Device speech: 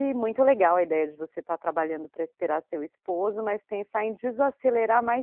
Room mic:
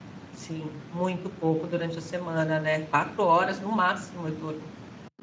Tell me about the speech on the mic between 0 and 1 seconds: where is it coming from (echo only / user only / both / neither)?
user only